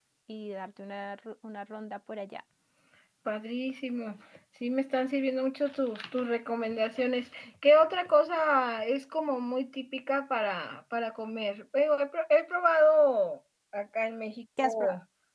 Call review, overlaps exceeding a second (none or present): none